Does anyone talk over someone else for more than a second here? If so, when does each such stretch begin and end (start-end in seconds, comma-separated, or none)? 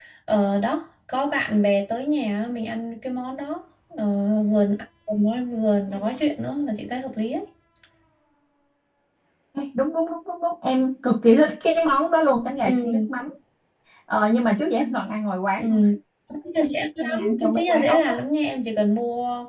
17.0-18.2